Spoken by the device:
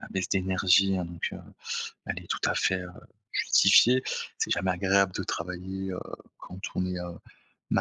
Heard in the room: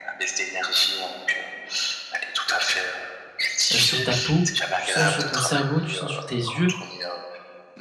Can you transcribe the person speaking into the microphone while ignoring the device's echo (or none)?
heu, sur ta peau, tu sens sur ton cerveau, tu sens sur tes yeux